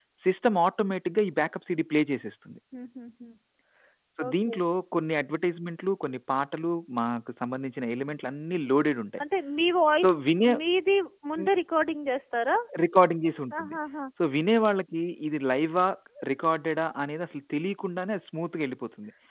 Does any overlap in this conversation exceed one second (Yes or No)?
No